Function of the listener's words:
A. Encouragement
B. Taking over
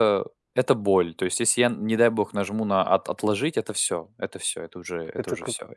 B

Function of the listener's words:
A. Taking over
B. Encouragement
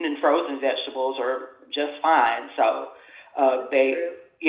B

